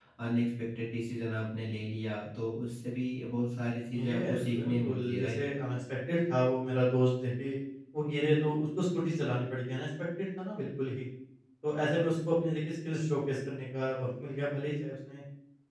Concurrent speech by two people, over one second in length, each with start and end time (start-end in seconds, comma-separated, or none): 4.1-5.4